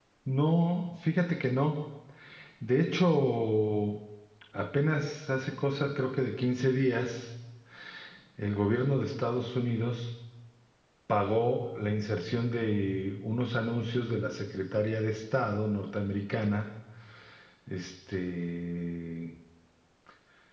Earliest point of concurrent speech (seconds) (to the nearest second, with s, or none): none